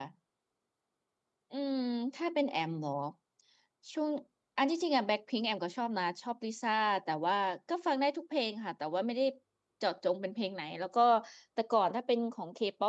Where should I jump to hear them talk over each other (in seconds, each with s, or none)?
none